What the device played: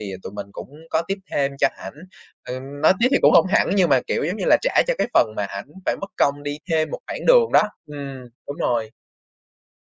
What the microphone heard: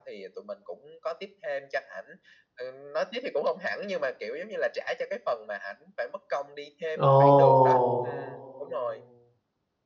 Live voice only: Ồ!

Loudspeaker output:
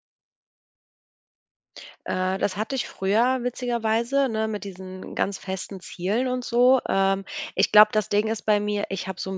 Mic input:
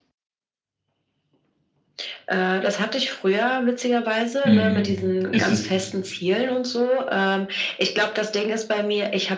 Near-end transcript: Mhm, ist es

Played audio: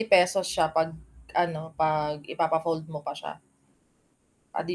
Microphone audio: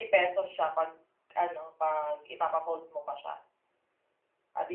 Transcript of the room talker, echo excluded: none

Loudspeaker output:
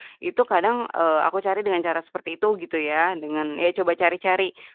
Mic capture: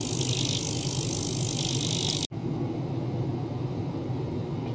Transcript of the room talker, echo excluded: none

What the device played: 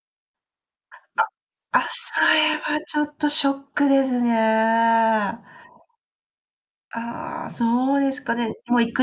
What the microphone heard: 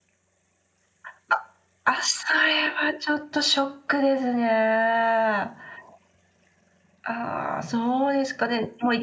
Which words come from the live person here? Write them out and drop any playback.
none

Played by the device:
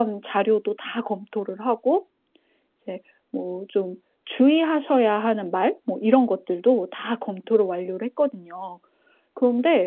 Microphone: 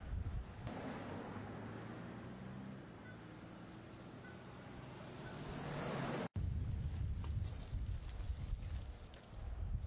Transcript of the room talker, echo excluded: none

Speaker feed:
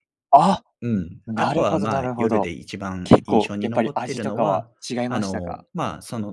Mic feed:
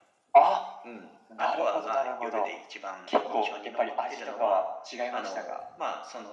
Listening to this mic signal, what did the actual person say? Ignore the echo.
none

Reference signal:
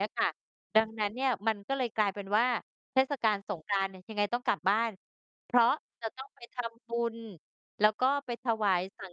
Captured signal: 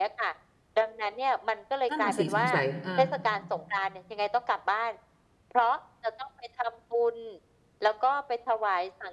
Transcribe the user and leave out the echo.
นั่นน่ะสิ สงสัย เออ

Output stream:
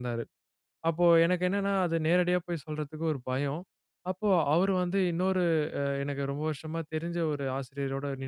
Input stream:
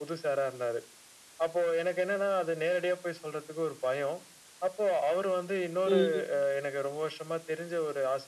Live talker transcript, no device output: ம்.

